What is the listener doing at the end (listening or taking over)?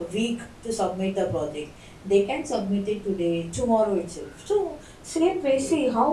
listening